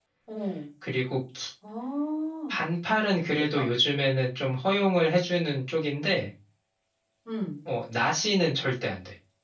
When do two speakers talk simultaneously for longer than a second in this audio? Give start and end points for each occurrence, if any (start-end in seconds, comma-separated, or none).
none